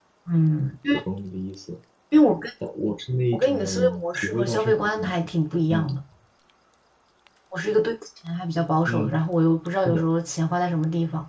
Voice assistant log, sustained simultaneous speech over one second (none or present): present